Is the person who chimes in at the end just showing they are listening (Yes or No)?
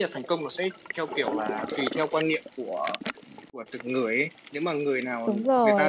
Yes